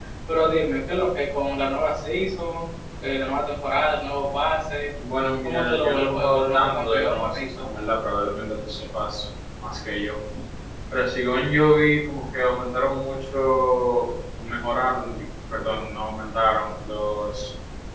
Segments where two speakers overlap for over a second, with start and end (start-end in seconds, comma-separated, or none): 5.4-7.6